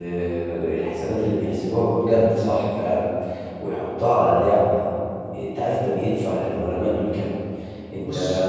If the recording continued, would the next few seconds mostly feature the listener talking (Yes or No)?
No